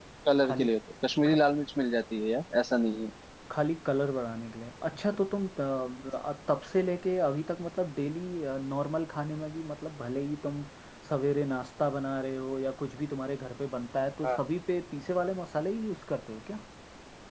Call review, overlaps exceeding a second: none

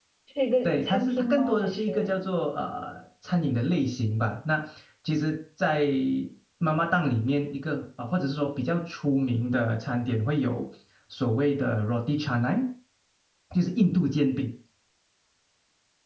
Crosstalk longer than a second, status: present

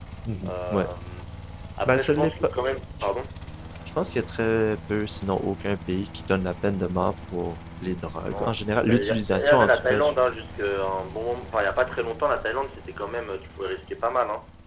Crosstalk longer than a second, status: present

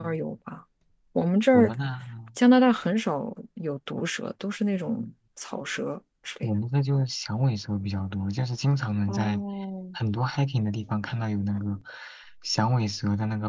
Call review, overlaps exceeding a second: none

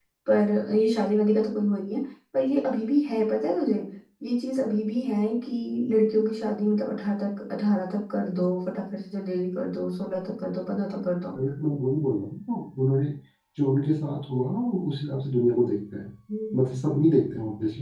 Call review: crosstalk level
none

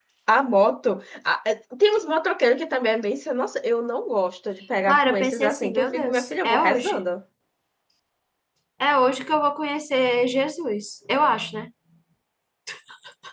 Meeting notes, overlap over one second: present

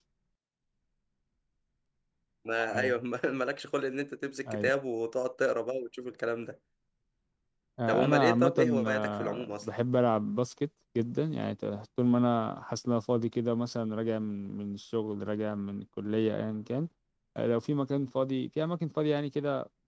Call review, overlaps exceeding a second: present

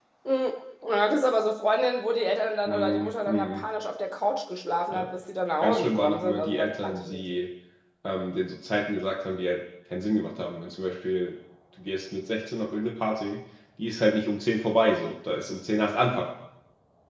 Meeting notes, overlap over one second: present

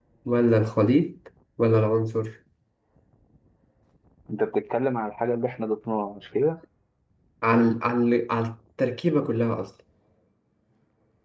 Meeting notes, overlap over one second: none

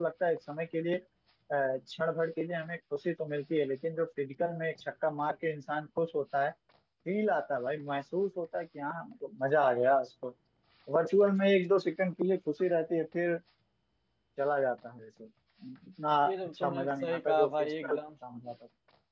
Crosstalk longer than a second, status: present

